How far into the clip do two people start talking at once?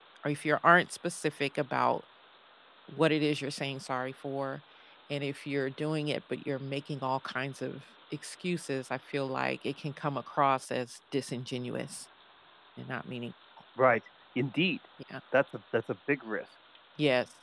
none

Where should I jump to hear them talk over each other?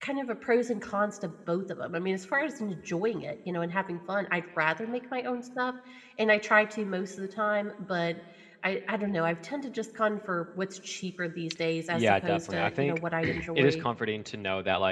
11.9 s

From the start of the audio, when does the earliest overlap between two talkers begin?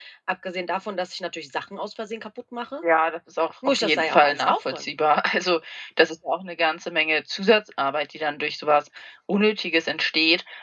3.6 s

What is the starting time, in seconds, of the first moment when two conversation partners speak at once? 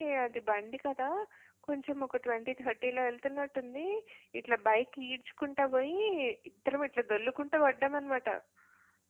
none

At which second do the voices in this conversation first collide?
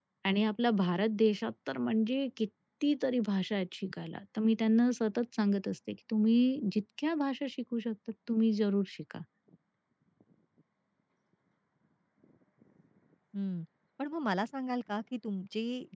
none

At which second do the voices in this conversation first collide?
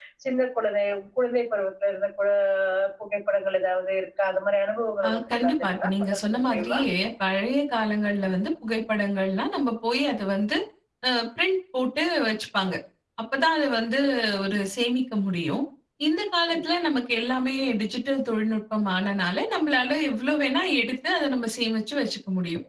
5.0 s

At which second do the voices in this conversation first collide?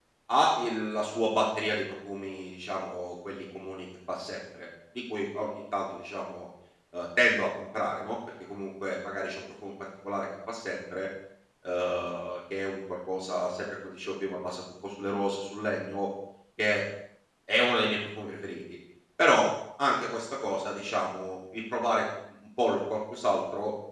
none

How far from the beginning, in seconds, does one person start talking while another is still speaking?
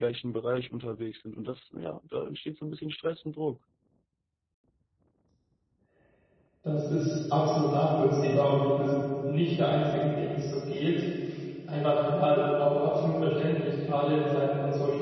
none

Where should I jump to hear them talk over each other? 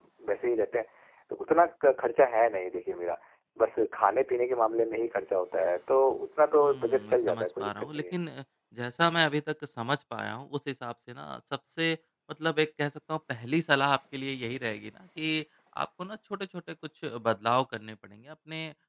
6.6 s

